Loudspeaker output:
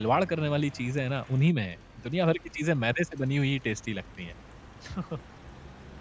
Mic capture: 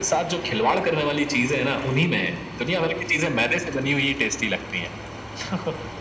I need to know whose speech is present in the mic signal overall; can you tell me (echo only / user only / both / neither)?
echo only